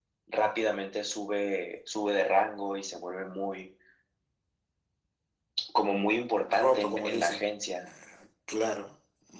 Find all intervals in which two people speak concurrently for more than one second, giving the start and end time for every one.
6.5-7.9

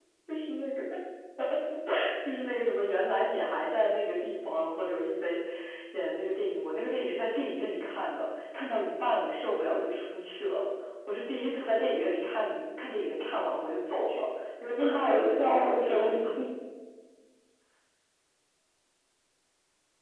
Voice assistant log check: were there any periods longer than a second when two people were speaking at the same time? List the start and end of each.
14.8-16.2

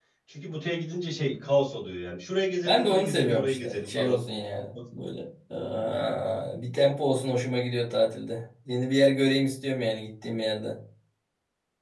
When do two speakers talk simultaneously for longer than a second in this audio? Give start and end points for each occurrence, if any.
2.6-4.2

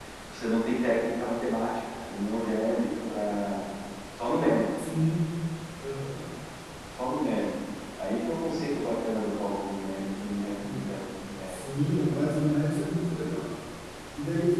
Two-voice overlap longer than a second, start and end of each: none

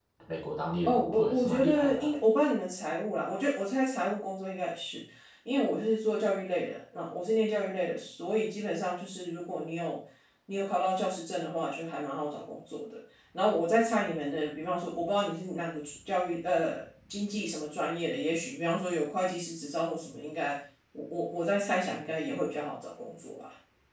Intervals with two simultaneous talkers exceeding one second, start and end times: 0.9-2.1

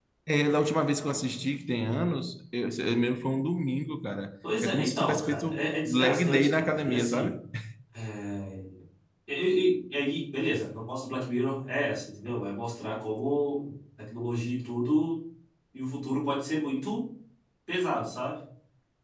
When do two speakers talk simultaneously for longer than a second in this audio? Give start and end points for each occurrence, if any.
4.6-7.3

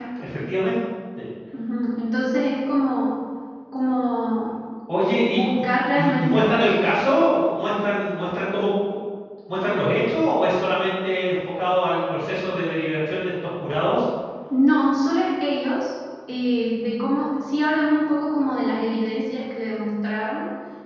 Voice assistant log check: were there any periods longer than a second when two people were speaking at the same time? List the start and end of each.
5.3-6.5

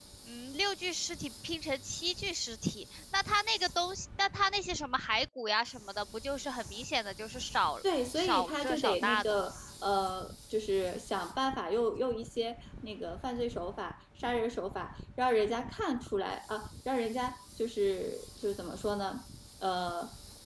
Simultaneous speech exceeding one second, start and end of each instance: 8.2-9.5

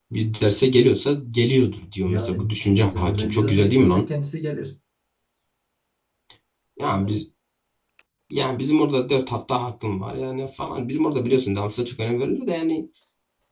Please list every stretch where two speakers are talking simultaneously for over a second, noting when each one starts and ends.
2.0-4.1

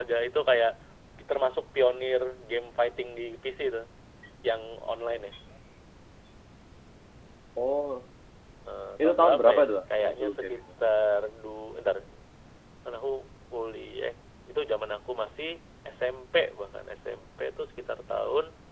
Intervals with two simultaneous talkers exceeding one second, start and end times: 9.0-10.6

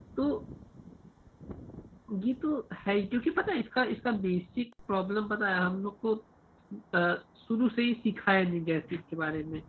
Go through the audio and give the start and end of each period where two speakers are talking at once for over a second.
none

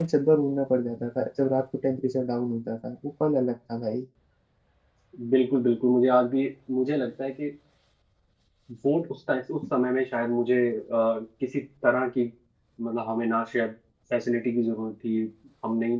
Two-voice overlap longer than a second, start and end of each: none

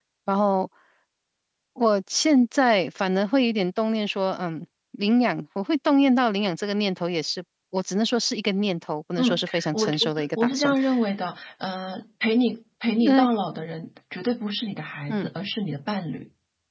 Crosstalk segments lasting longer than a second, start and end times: 9.2-10.7

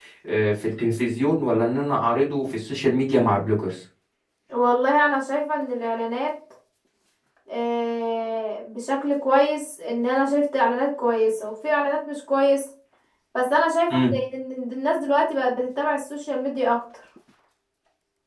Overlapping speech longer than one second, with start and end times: none

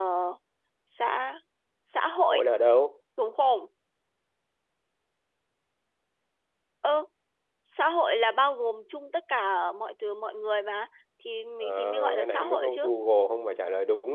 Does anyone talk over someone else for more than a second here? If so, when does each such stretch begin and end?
11.6-12.9

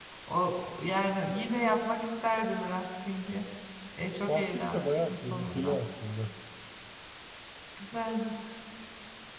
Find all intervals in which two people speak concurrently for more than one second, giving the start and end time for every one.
4.3-5.8

